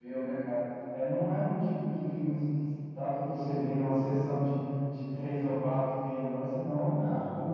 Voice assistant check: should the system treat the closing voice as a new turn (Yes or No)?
No